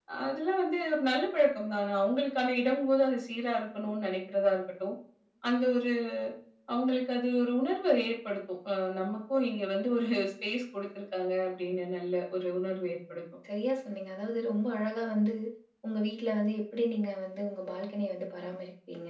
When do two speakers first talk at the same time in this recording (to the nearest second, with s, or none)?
none